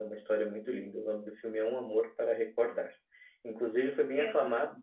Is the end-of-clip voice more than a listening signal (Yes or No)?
No